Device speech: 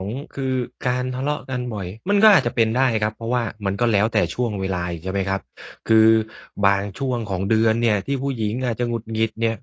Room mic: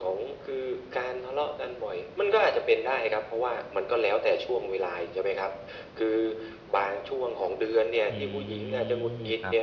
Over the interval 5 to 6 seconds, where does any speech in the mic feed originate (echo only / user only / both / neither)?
echo only